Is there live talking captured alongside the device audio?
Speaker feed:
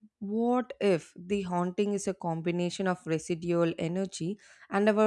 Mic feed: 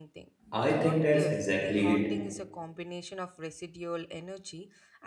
Yes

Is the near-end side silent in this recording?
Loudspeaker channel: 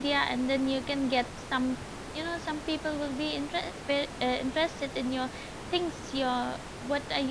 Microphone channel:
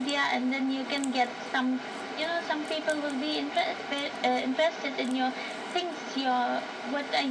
Yes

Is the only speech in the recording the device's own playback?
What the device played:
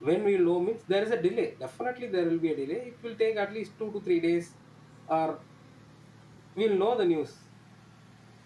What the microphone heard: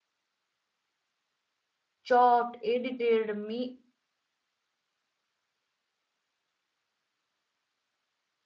No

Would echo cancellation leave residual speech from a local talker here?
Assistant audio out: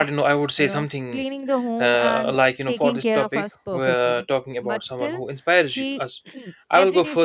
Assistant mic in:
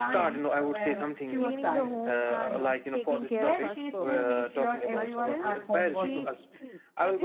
Yes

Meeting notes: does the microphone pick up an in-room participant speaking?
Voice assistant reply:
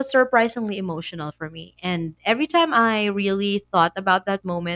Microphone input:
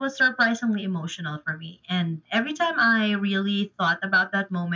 No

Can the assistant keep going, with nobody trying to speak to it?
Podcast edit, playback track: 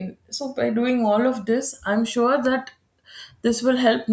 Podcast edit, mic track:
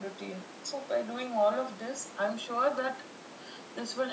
Yes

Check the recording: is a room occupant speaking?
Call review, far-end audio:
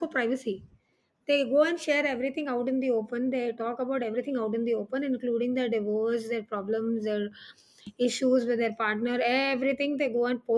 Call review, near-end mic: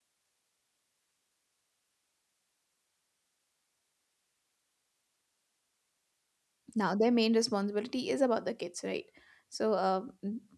Yes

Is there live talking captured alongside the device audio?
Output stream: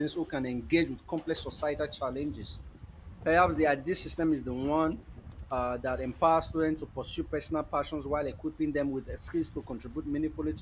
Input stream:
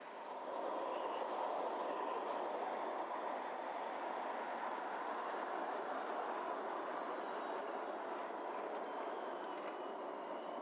No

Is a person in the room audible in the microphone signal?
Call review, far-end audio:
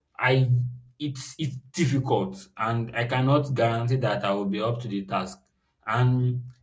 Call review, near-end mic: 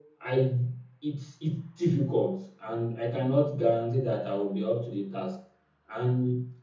No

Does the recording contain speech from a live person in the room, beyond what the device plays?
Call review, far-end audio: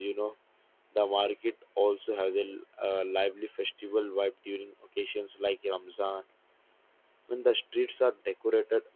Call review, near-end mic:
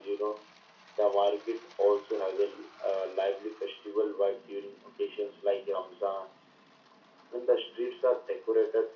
No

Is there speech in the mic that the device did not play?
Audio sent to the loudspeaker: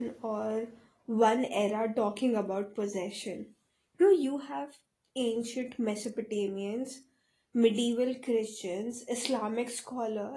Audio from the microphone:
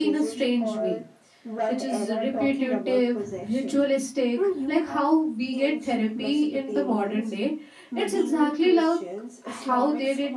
Yes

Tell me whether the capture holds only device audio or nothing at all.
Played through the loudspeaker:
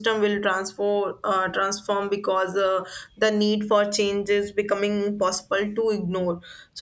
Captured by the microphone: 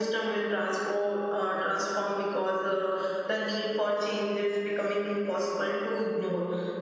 Yes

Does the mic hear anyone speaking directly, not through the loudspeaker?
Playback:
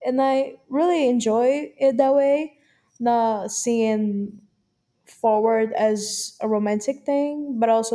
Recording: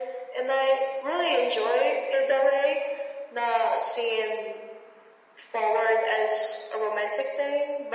No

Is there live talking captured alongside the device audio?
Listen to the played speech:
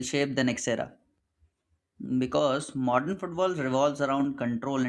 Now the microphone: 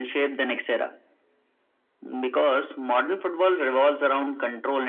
No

